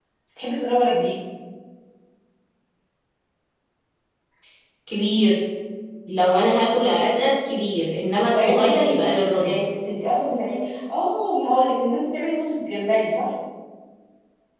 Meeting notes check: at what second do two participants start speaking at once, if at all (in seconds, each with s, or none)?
8.1 s